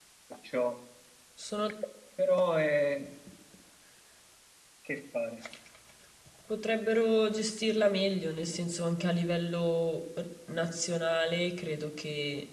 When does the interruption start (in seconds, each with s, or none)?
none